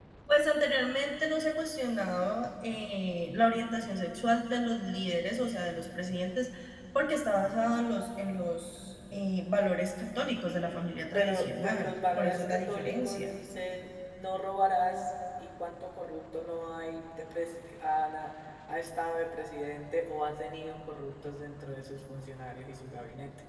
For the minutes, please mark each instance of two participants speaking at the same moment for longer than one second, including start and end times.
11.1-13.3

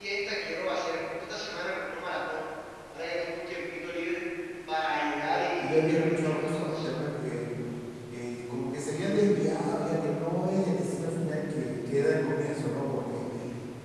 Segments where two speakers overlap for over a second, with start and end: 5.6-6.9

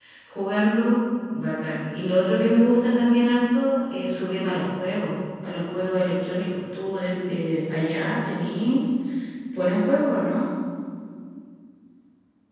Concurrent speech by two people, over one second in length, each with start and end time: none

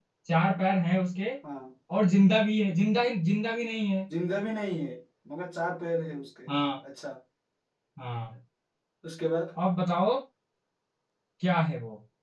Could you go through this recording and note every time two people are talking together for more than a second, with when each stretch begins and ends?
none

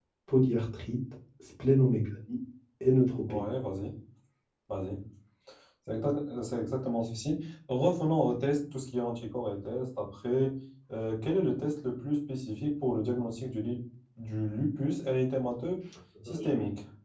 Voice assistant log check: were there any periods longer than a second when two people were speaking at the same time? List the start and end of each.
none

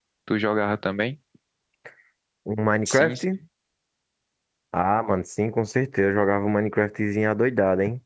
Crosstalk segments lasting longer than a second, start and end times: none

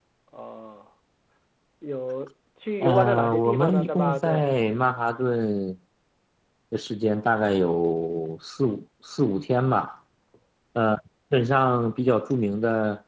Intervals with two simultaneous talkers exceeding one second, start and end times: 2.8-4.4

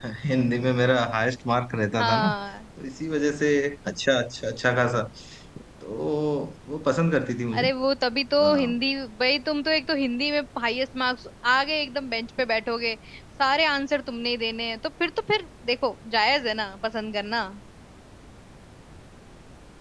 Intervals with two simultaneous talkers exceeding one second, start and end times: none

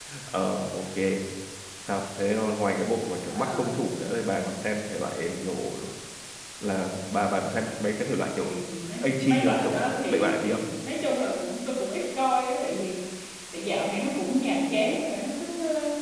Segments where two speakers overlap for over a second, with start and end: 9.0-10.6

